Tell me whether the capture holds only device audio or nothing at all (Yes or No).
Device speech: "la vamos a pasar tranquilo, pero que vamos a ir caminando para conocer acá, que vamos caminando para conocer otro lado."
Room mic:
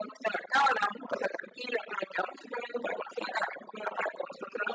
Yes